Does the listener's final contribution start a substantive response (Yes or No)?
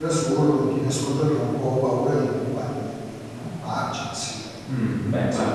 Yes